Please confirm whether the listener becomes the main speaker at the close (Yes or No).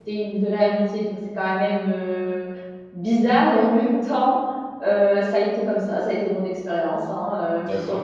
No